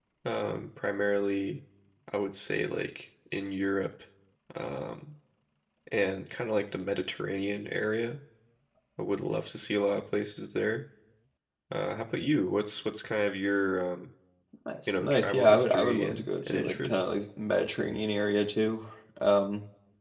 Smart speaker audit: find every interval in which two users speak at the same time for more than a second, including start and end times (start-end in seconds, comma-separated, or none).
14.9-17.1